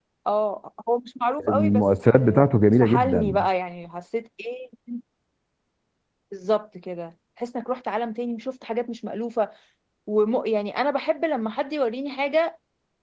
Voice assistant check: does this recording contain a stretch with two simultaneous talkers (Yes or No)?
Yes